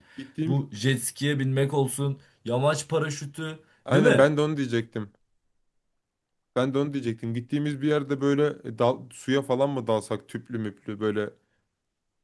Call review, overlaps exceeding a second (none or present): none